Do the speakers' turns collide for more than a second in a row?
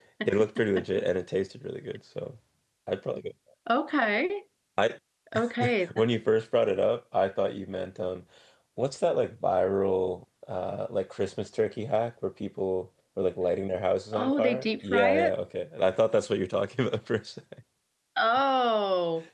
Yes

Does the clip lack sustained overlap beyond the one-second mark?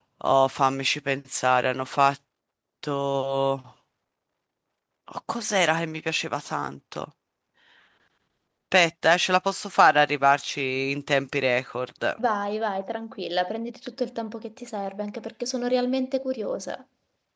Yes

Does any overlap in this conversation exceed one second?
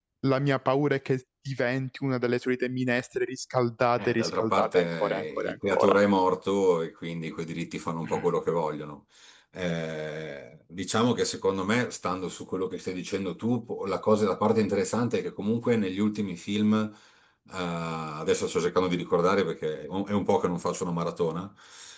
Yes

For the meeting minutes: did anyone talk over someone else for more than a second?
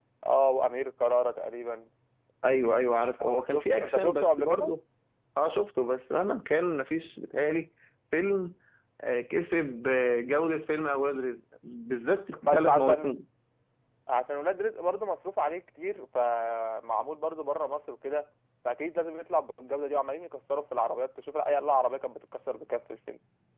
Yes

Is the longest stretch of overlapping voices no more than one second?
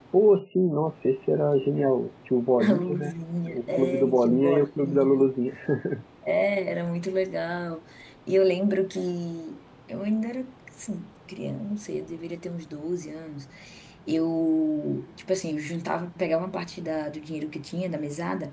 No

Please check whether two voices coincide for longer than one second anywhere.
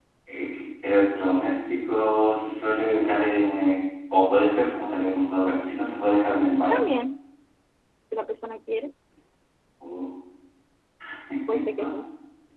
No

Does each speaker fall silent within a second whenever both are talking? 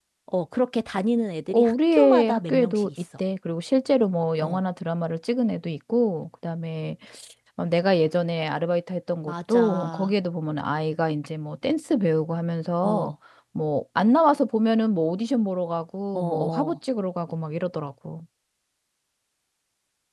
No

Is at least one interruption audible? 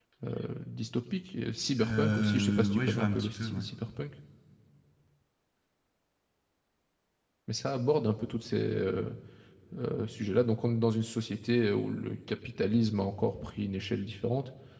Yes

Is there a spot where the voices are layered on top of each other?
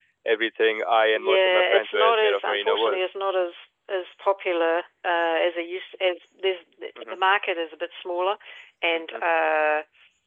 Yes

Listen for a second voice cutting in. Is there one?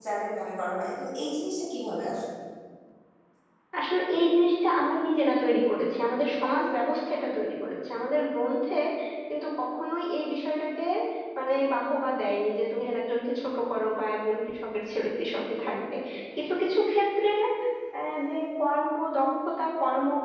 No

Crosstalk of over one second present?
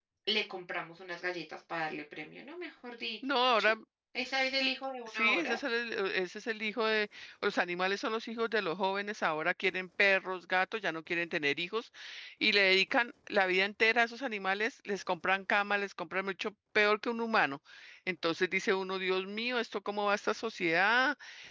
No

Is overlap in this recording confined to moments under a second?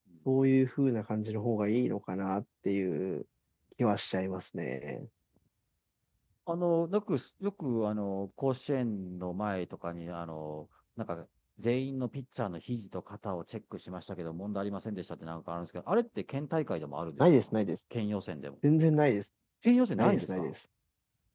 Yes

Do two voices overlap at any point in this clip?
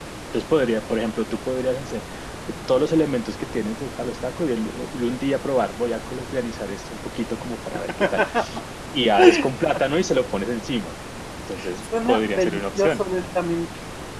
Yes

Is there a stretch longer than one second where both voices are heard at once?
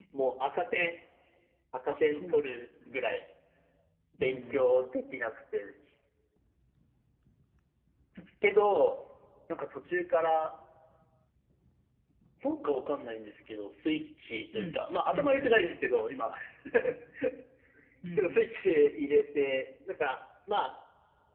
Yes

